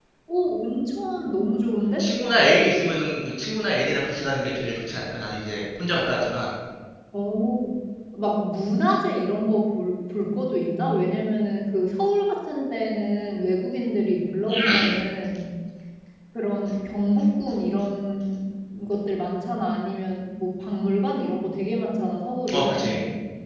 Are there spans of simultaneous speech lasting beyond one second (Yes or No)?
No